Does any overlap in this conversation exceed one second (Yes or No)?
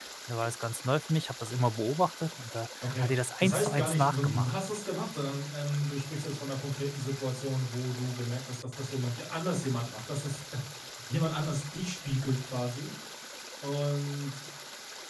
Yes